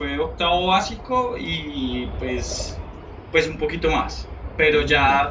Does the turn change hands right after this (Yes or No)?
No